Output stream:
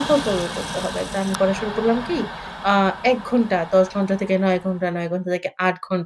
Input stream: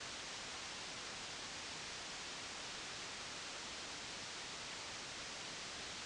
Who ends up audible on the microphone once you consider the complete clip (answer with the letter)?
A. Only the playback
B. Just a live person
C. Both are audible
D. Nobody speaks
D